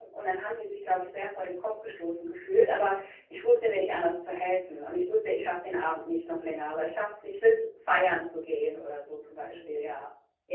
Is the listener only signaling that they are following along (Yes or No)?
No